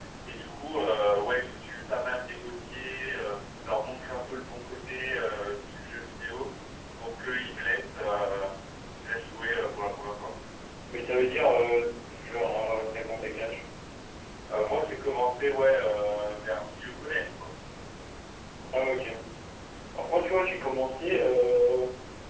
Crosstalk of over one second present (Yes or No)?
No